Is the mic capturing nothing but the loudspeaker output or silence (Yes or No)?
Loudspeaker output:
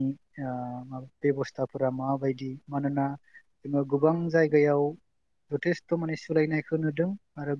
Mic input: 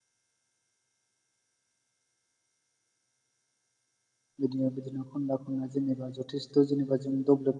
No